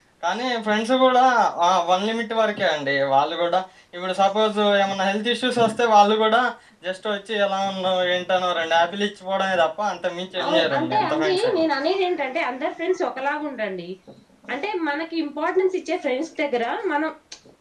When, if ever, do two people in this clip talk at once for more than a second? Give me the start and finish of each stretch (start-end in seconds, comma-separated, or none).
10.4-11.7